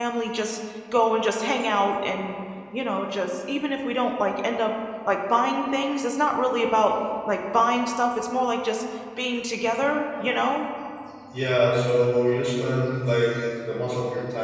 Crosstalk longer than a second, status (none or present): none